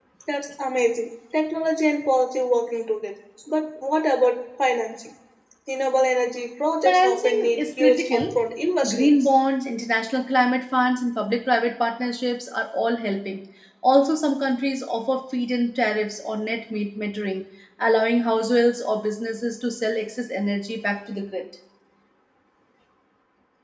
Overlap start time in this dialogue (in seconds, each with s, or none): 6.8 s